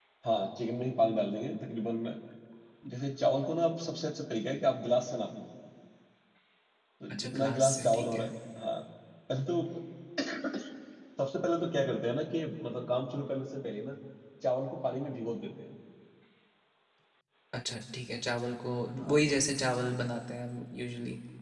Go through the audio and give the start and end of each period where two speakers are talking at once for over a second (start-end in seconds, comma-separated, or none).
7.1-8.3